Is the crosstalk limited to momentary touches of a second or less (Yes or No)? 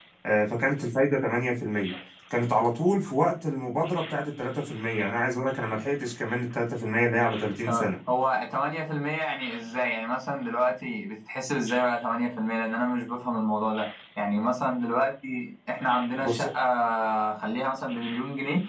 Yes